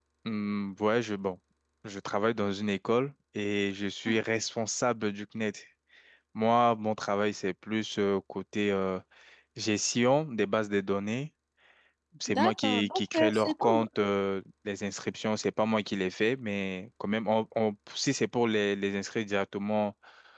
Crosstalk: present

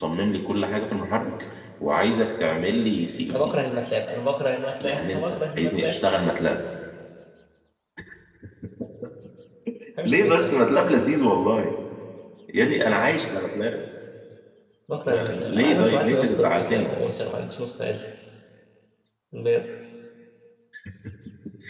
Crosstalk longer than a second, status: present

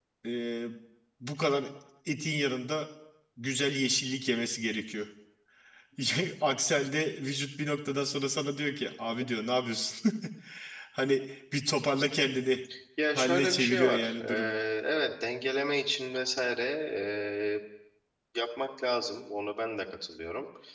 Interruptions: present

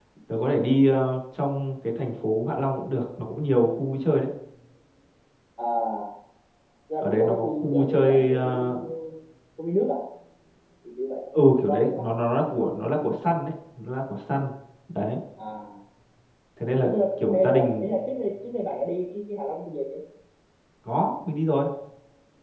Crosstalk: present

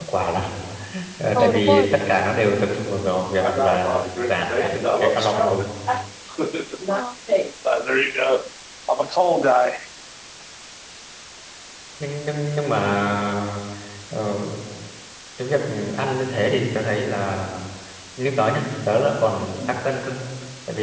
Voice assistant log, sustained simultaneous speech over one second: present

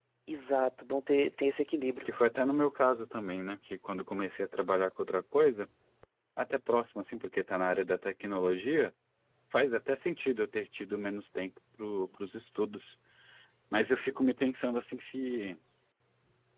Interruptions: none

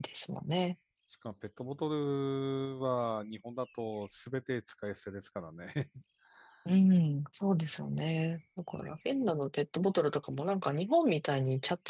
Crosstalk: none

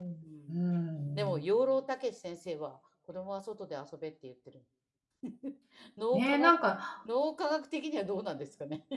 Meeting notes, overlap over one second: none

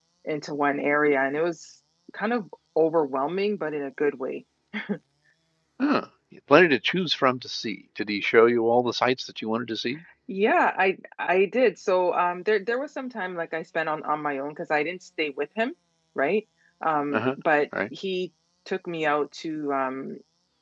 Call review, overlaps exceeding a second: none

